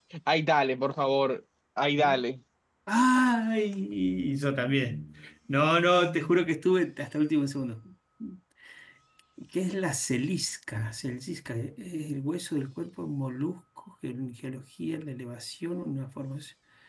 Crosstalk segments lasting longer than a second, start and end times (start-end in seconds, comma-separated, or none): none